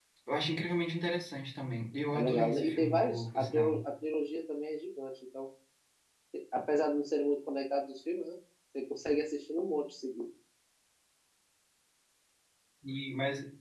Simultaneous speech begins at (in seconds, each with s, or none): 2.1 s